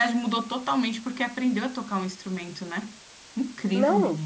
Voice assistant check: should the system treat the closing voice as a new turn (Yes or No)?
Yes